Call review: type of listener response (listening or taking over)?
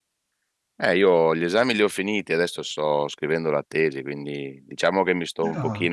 listening